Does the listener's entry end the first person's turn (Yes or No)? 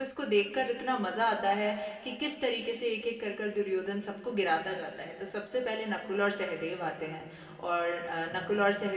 No